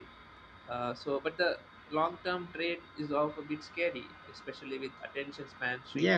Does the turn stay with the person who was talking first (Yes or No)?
No